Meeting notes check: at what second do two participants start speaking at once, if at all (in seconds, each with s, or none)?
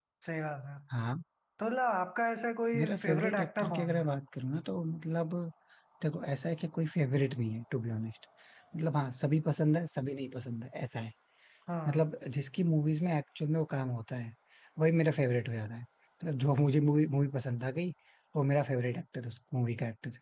2.7 s